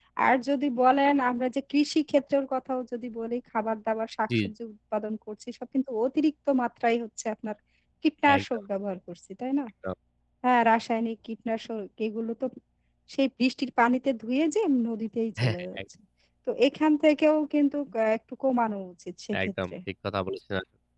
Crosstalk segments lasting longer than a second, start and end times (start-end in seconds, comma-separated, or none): none